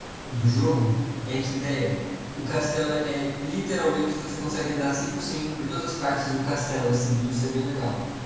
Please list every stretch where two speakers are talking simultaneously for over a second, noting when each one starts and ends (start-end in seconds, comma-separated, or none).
none